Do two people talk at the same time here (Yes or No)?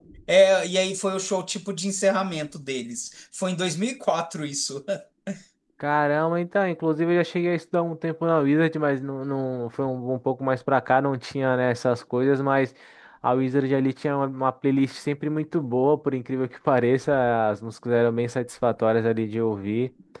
No